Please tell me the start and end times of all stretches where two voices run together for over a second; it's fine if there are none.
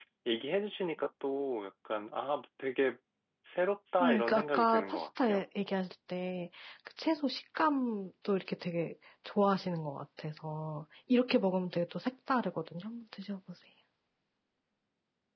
4.0-5.4

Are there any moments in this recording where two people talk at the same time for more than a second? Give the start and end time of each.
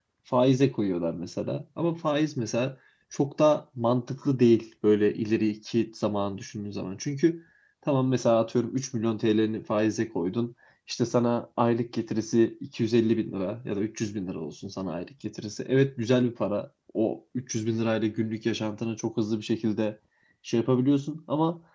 none

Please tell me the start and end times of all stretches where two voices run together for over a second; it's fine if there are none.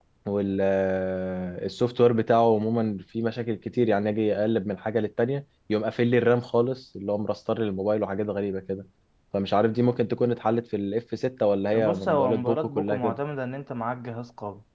11.7-13.2

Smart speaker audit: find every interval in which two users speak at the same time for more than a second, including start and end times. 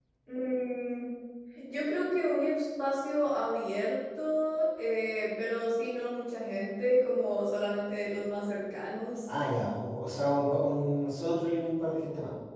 none

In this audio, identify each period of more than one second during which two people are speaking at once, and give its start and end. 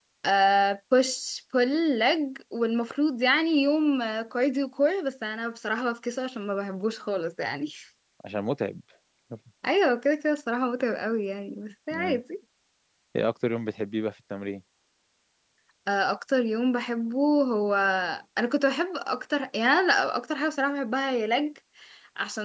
none

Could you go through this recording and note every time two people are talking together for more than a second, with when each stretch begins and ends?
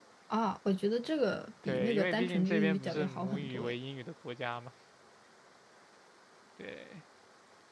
1.6-3.7

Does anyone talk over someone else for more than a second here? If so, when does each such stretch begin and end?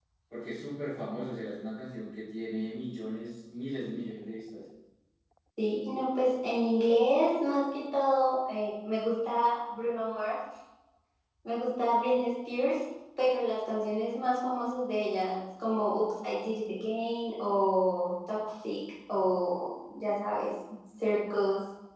none

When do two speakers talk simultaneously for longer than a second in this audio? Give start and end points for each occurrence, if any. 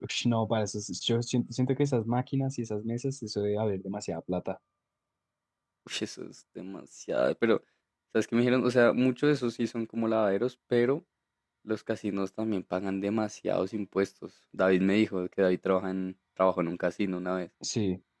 none

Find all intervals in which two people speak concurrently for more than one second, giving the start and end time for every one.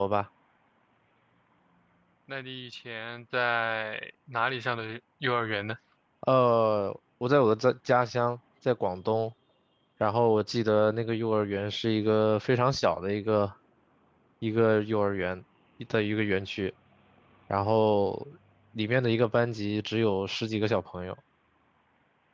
none

